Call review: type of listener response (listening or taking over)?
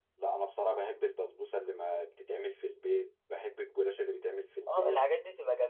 taking over